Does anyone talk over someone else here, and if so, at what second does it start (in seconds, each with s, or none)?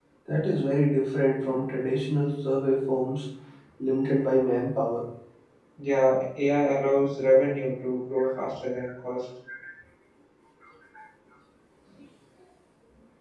none